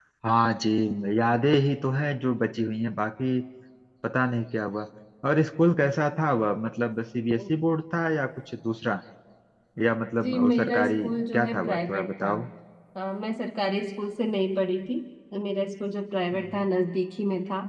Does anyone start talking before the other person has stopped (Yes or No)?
Yes